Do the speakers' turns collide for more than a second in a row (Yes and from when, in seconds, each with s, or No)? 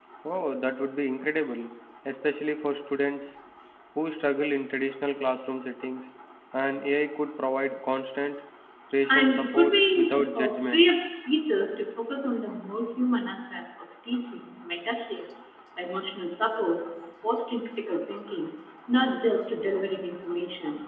Yes, from 9.1 s